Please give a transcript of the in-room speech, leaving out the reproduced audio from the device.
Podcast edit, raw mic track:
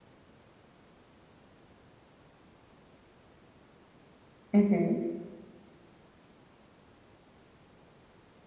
Ujú.

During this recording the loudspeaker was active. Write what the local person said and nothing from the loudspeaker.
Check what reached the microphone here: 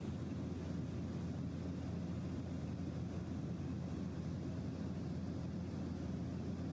none

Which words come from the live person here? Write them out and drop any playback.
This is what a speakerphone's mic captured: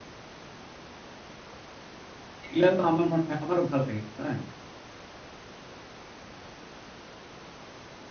এগুলাও আমার মনে হয় আমারও ভাল লাগে। হ্যাঁ?

